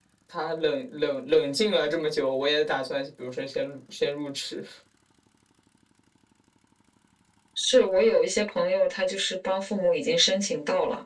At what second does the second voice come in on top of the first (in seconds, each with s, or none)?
none